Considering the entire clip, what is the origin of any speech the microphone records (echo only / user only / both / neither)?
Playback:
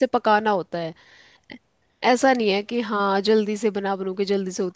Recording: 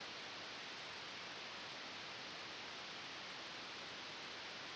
neither